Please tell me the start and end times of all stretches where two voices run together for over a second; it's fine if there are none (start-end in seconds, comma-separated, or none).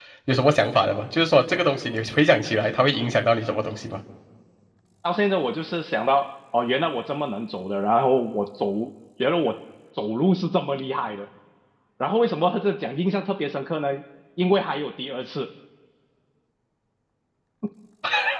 none